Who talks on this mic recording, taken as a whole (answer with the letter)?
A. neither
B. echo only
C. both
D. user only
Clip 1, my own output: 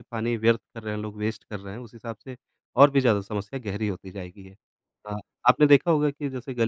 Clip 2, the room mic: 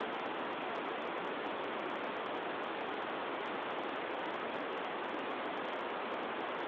A